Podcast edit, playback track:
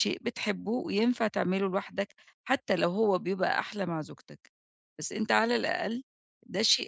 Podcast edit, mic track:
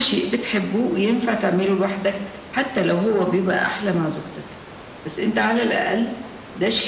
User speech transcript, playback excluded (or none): none